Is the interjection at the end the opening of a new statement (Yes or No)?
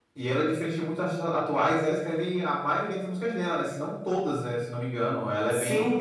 Yes